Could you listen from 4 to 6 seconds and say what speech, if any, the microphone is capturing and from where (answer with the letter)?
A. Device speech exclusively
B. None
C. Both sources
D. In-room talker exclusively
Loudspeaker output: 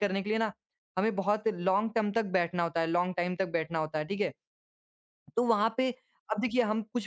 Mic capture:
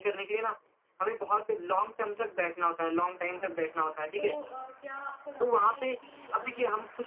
C